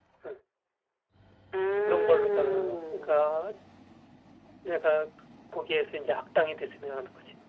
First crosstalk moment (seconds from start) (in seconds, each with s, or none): 1.9 s